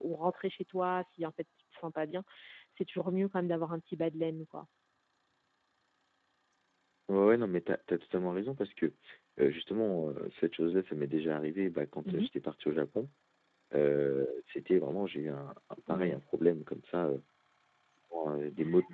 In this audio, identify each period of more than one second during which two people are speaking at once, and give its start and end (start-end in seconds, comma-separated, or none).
none